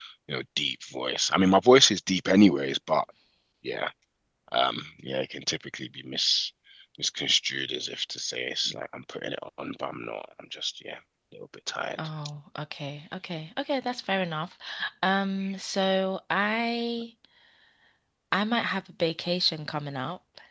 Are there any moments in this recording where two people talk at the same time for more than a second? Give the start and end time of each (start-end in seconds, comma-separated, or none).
none